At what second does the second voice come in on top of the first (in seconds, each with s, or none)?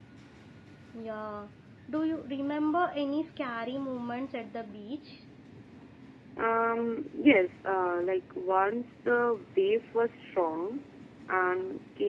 none